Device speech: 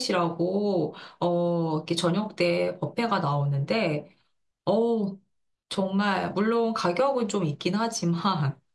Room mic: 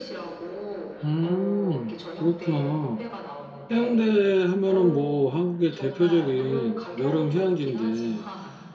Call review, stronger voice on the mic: user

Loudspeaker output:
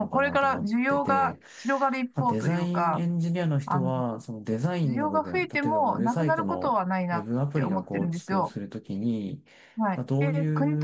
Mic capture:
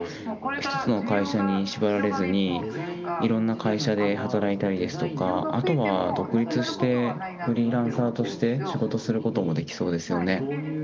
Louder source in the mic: user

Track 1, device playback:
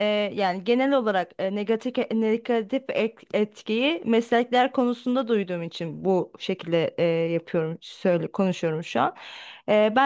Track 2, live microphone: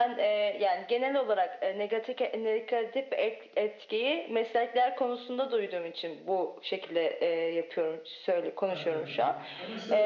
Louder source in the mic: echo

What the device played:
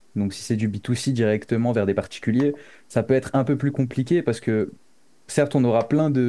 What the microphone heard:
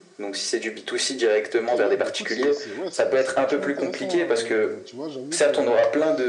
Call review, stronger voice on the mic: echo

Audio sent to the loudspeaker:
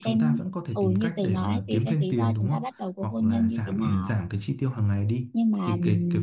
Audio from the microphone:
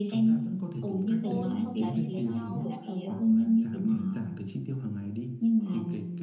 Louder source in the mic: echo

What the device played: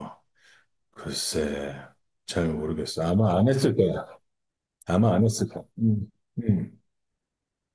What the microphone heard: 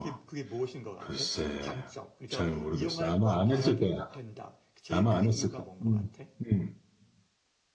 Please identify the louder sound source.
echo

